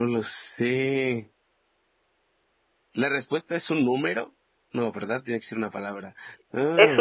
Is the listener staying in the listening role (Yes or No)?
No